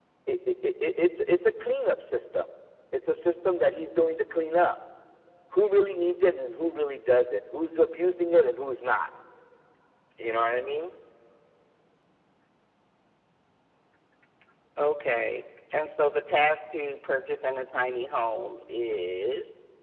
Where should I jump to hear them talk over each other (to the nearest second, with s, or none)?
none